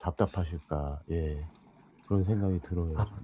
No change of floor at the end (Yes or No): No